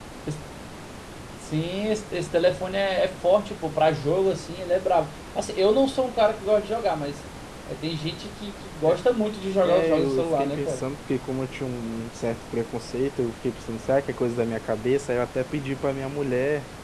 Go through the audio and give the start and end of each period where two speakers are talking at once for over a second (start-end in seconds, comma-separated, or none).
9.6-10.8